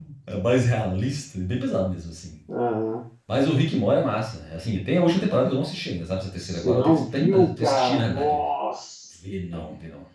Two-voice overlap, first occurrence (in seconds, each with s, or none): 6.4 s